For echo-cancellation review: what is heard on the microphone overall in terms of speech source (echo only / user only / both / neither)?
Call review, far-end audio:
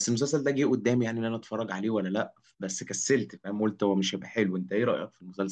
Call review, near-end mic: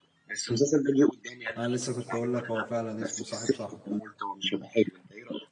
both